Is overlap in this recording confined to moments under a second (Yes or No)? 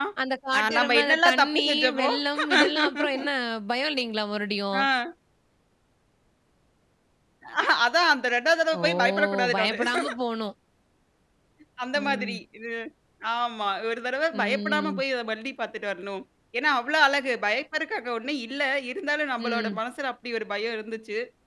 No